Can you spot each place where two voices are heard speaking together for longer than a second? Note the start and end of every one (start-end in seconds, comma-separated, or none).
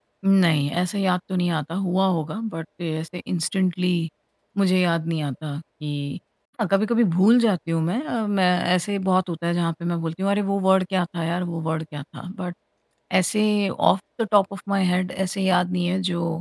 none